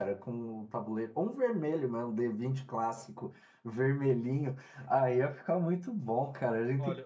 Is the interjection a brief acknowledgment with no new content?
No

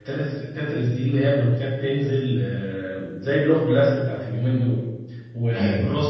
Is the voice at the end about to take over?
No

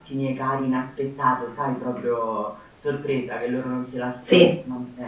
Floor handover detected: No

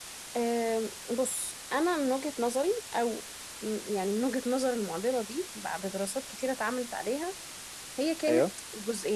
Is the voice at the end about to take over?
No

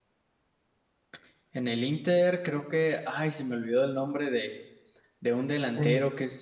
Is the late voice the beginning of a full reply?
No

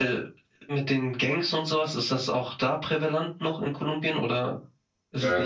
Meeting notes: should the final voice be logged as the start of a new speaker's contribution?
Yes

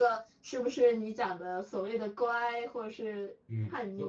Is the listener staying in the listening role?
No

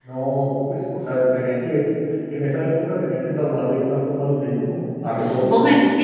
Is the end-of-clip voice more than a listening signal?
Yes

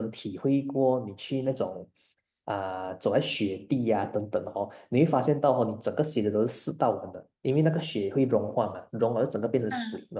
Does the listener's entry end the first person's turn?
No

